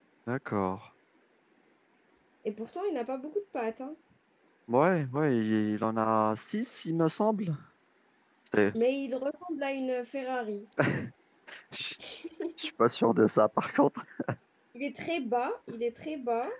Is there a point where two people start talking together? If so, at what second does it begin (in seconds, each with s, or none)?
none